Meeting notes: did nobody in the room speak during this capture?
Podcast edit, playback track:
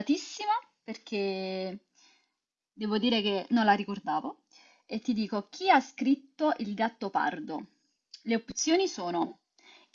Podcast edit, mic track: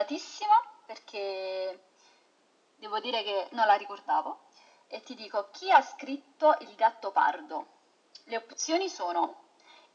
Yes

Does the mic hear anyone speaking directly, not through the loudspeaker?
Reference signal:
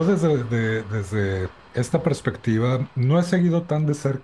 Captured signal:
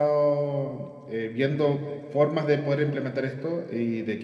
Yes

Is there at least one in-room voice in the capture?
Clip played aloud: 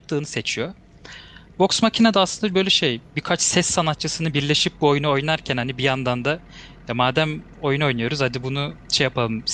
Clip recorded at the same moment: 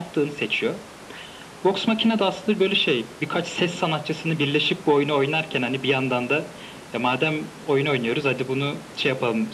No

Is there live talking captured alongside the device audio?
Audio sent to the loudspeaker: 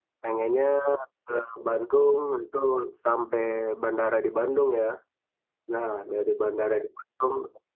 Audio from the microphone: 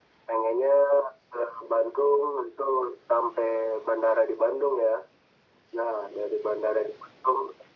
No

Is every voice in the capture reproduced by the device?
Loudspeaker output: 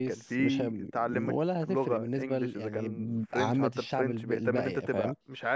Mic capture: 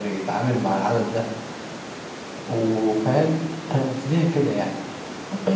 No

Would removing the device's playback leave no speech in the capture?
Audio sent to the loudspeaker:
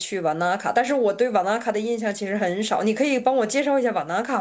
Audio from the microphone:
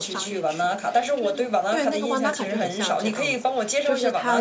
No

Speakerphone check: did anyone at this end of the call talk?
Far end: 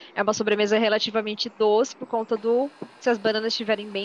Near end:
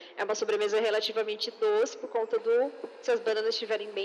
No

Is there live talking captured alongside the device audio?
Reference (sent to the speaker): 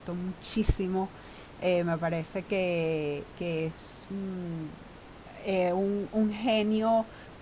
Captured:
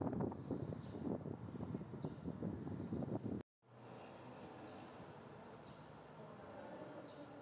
No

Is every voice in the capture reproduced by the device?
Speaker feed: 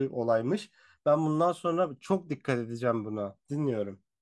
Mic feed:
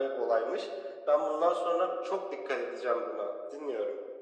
Yes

